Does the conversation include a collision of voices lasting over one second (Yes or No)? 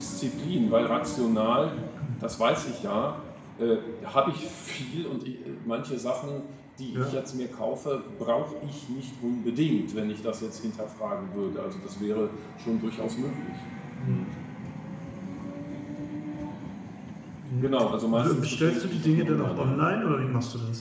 Yes